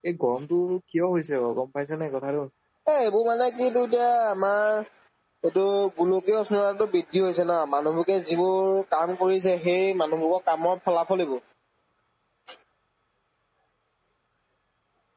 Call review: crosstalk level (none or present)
none